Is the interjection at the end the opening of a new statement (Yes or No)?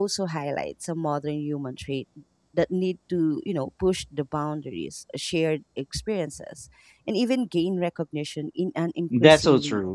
Yes